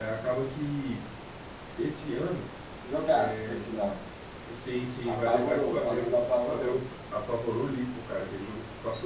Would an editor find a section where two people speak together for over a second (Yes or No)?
Yes